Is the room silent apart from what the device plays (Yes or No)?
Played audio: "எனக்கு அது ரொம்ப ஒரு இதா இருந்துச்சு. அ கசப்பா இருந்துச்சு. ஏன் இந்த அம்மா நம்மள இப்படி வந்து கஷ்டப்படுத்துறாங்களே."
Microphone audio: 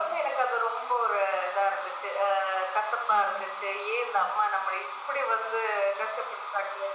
Yes